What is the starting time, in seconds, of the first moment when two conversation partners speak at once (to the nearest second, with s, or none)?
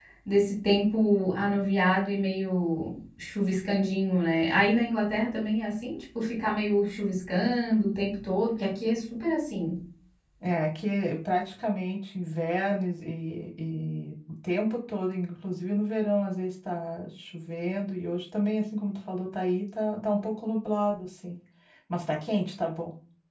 none